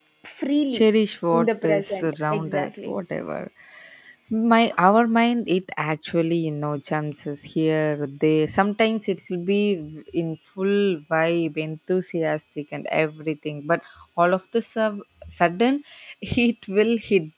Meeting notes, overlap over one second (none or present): present